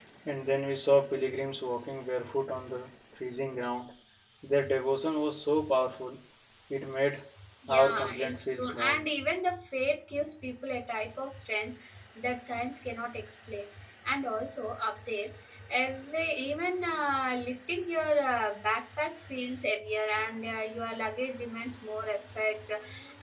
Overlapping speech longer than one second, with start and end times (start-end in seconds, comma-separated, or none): 7.7-9.0